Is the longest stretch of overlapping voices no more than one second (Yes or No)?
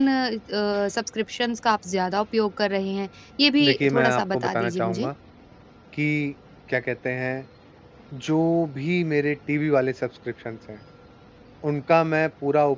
No